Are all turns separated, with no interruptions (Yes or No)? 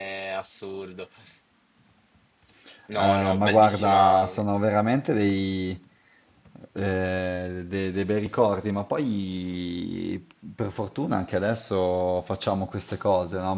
No